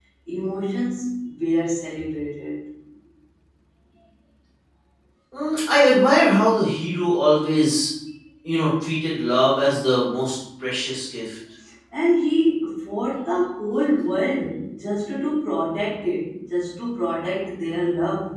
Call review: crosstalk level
none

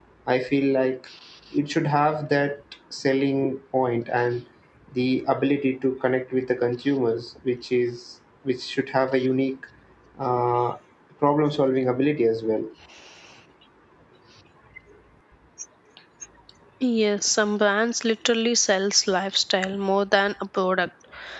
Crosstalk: none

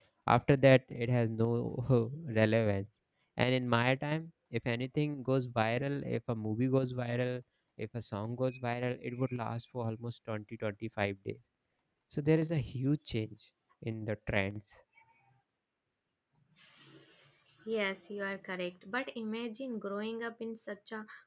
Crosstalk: none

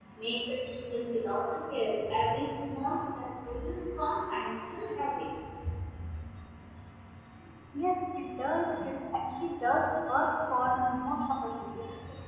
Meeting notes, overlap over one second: none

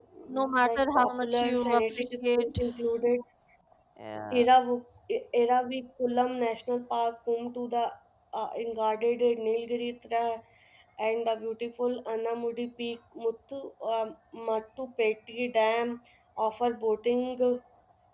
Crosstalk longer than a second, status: present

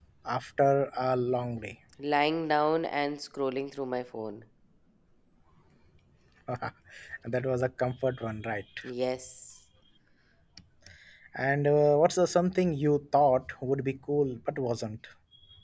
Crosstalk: none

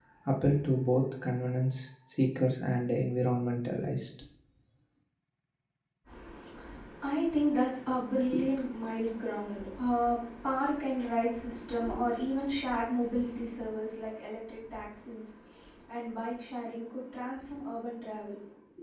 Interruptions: none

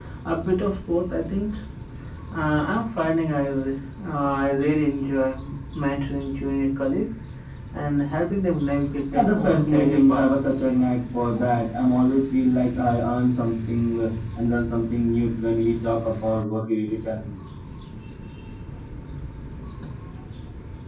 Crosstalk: present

